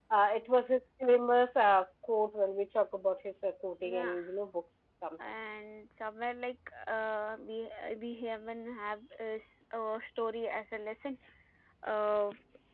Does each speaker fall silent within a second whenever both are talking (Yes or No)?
Yes